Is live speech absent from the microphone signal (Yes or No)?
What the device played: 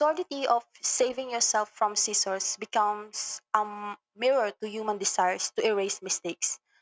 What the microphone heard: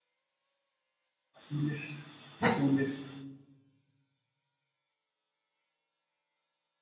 No